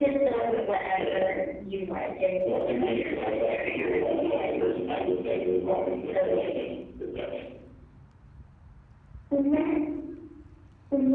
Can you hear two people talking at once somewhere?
Yes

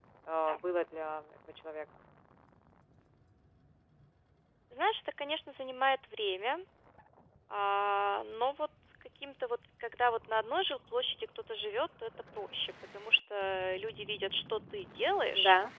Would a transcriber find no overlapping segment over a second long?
Yes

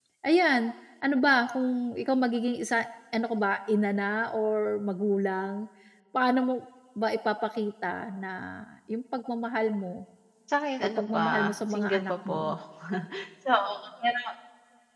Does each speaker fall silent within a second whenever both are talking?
No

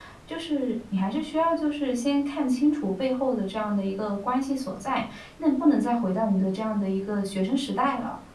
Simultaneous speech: No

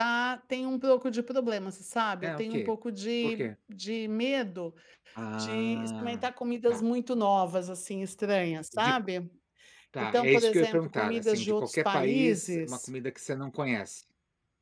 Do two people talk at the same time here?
Yes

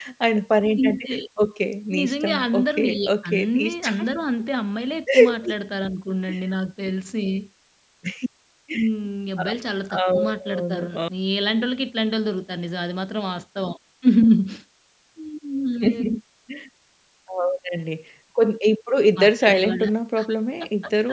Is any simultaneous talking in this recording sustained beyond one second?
Yes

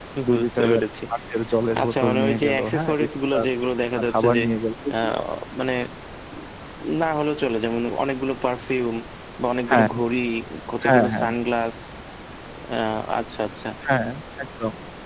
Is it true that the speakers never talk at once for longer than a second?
No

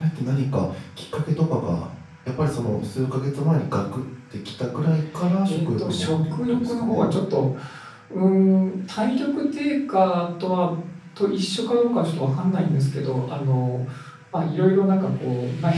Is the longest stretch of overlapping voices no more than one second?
No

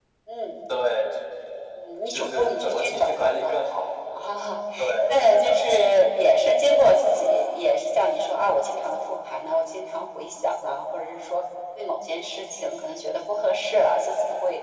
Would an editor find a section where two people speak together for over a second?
Yes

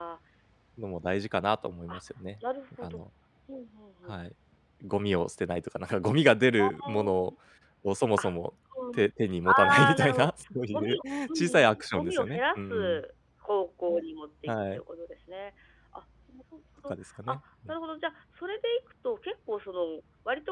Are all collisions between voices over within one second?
No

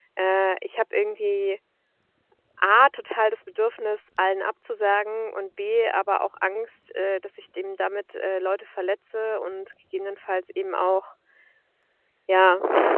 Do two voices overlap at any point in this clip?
No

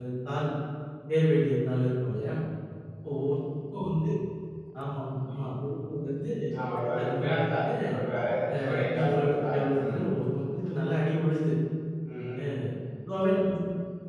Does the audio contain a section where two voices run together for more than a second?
Yes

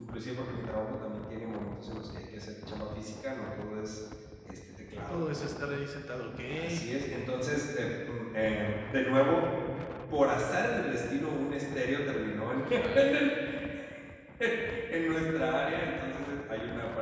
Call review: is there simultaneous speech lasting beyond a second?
No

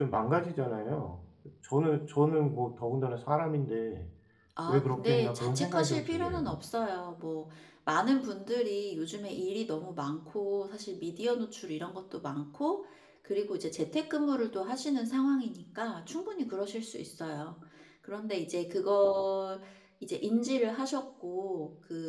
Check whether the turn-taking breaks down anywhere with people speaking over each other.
Yes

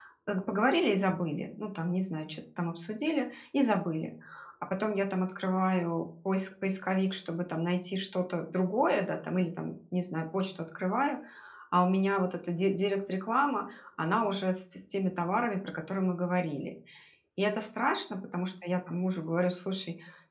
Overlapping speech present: No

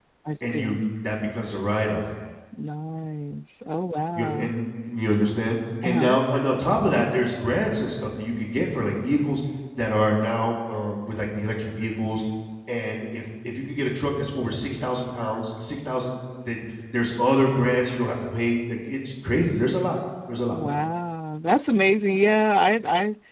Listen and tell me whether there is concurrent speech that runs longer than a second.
No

